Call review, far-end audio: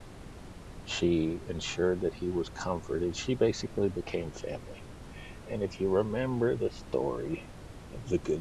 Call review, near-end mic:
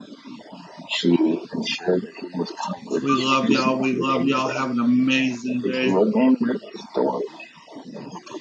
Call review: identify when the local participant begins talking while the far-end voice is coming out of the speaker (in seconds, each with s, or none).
3.0 s